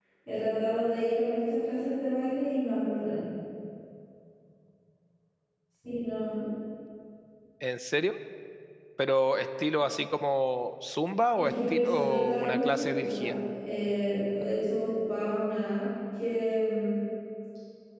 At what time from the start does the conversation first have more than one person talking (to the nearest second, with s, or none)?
11 s